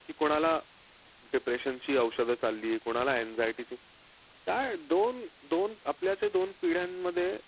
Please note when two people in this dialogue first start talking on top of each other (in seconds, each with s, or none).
none